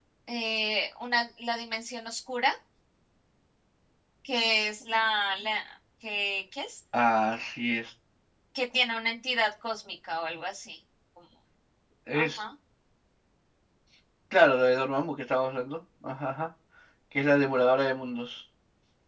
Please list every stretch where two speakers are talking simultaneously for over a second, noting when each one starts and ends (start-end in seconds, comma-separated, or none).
none